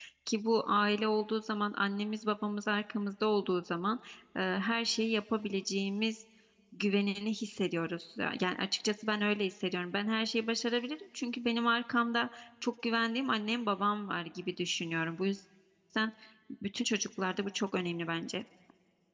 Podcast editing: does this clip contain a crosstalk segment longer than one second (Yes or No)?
No